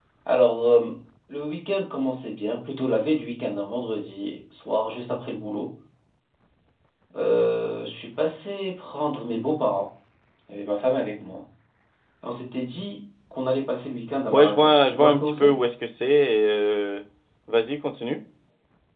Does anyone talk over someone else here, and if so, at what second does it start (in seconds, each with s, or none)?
14.3 s